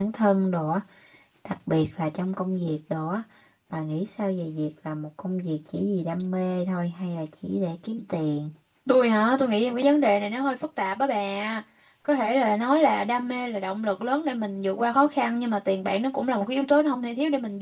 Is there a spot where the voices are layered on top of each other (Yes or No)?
No